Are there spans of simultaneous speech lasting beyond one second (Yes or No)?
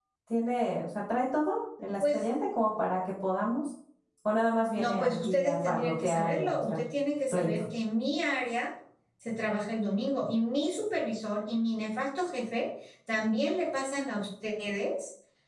Yes